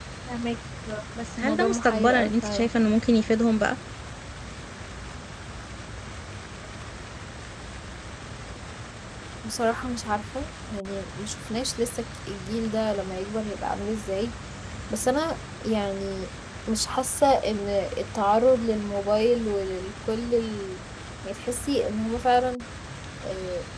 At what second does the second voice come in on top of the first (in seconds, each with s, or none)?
1.1 s